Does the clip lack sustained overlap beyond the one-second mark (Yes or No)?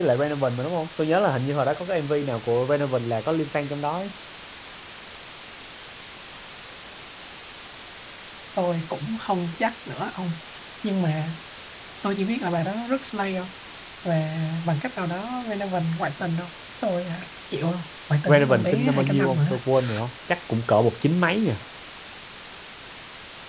No